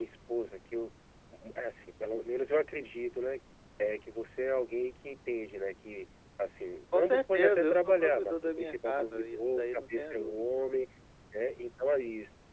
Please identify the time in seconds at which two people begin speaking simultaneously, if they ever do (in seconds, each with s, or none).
6.9 s